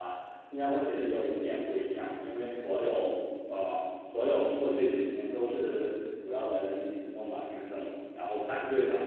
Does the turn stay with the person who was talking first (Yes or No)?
Yes